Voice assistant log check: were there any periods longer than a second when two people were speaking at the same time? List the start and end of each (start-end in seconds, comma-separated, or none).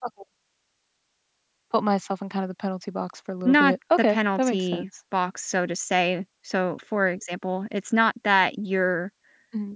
3.5-4.9